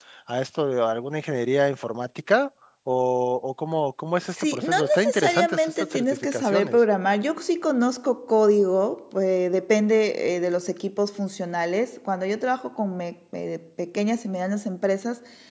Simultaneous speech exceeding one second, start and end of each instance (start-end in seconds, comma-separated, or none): 4.2-6.8